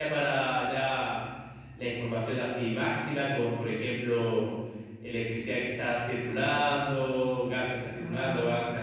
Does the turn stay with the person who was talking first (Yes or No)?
Yes